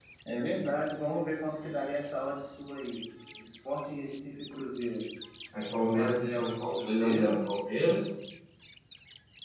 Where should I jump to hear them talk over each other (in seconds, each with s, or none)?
5.8 s